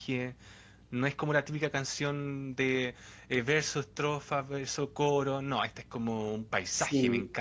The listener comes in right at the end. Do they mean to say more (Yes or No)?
Yes